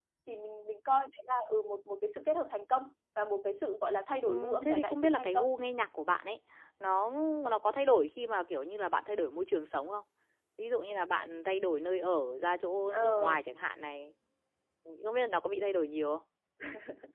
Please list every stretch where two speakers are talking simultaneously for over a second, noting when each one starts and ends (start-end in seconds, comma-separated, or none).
4.2-5.5